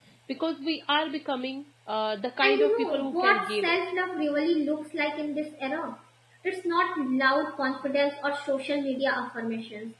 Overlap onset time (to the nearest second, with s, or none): 2 s